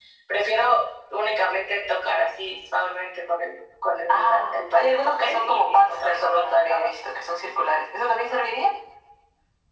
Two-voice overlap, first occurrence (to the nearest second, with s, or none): 4 s